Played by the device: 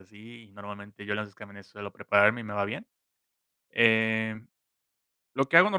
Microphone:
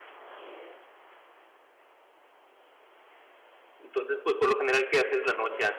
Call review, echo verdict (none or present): none